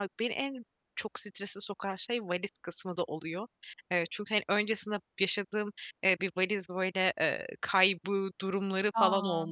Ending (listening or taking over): listening